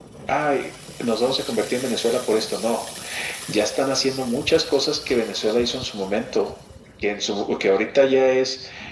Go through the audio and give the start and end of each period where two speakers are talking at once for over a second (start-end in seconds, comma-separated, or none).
none